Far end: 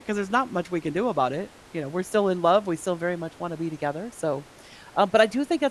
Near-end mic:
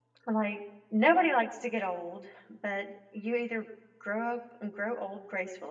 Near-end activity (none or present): present